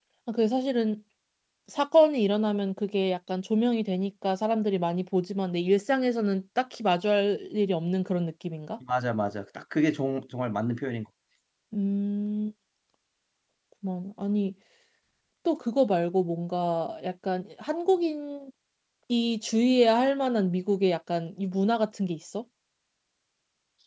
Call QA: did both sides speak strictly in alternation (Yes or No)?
Yes